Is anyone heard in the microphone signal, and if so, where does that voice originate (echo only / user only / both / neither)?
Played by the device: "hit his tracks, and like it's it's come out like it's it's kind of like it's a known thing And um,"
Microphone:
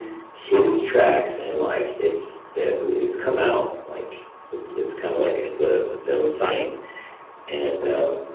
both